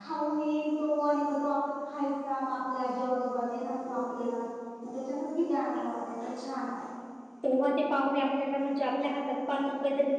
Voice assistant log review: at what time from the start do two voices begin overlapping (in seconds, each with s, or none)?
none